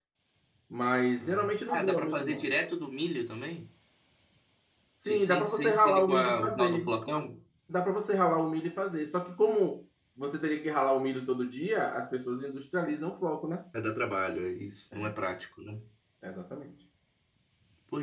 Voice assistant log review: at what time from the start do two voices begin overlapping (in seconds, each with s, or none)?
1.2 s